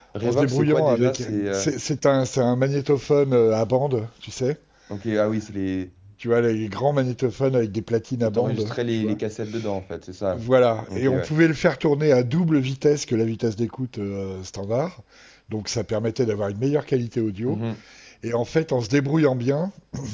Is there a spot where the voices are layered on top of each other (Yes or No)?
Yes